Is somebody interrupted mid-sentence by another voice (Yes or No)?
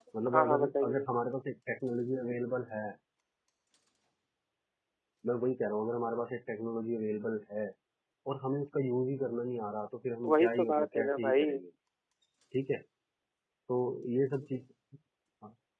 Yes